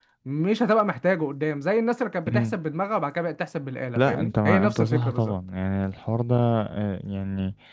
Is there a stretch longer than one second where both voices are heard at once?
Yes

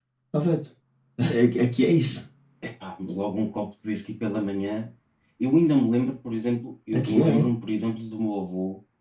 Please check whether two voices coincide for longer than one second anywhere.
No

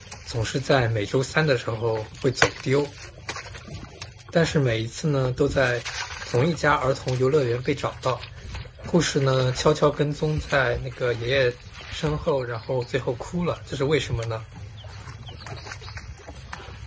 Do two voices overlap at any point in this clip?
No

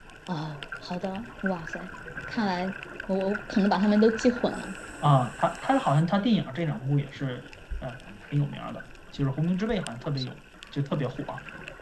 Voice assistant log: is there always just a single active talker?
Yes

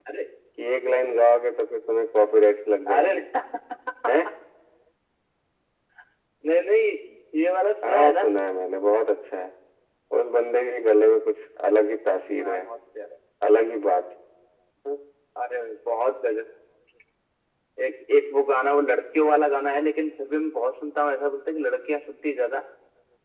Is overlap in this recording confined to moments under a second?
Yes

